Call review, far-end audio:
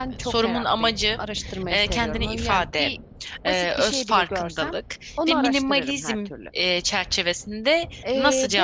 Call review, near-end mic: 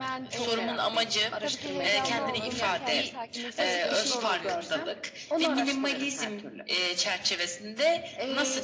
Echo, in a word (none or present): present